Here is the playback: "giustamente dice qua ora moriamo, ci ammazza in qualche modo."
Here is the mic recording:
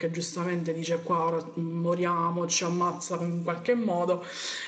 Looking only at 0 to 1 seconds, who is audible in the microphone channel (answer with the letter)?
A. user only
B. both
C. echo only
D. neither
C